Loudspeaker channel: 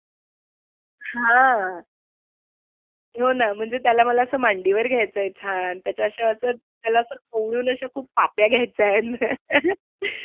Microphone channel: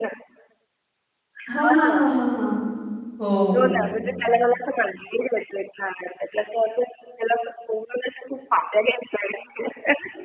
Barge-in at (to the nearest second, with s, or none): 1 s